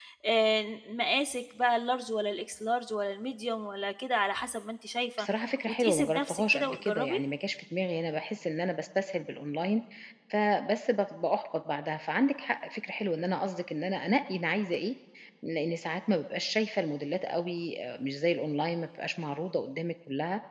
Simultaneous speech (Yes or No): Yes